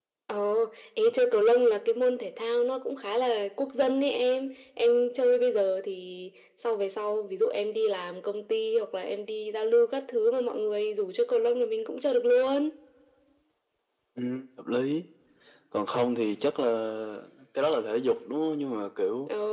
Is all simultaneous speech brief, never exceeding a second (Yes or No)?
Yes